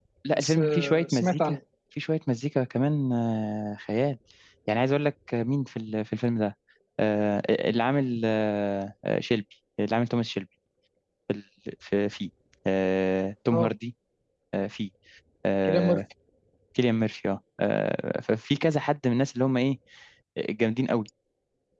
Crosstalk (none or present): present